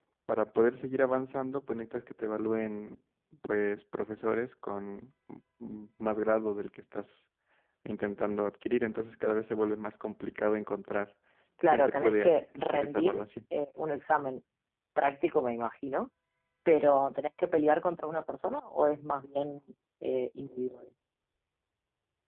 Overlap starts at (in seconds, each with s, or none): 11.7 s